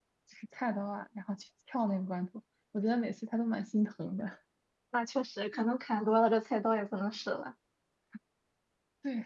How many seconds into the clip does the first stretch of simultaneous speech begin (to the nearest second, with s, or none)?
none